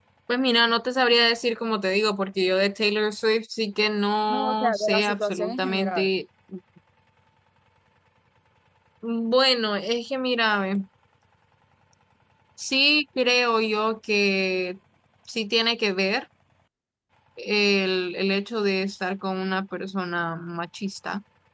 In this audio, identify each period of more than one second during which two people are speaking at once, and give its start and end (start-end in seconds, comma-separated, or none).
4.3-6.1